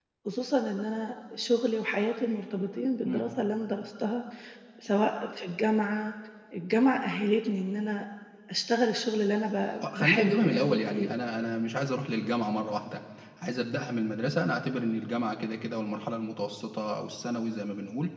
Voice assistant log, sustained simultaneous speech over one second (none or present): present